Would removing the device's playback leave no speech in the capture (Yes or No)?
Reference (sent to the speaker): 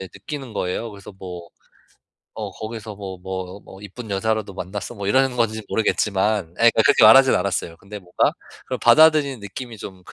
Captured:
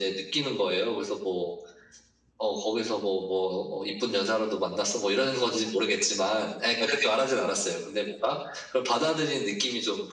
Yes